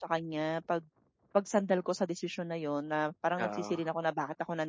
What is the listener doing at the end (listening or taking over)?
listening